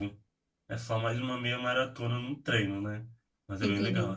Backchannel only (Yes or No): No